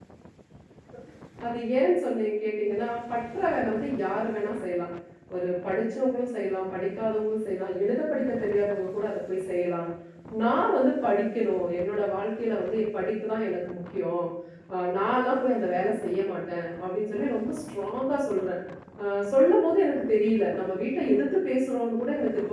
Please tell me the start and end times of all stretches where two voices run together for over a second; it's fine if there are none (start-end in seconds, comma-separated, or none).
none